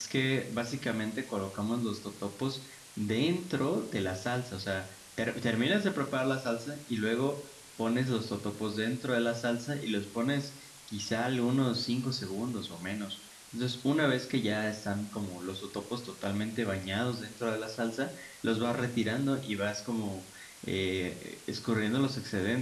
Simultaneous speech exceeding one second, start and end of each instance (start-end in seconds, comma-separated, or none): none